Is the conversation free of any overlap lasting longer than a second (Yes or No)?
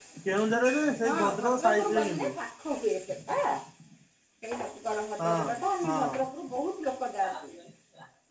No